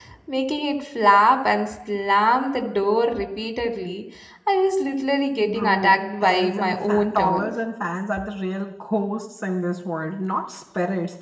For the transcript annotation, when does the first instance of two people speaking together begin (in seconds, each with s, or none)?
5.4 s